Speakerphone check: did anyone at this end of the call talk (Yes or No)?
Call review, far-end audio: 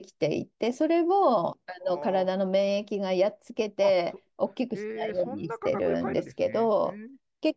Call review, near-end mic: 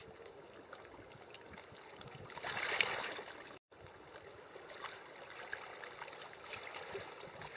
No